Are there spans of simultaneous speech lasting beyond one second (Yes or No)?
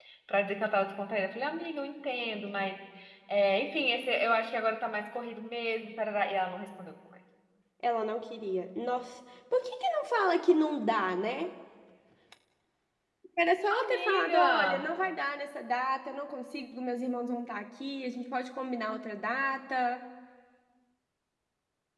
Yes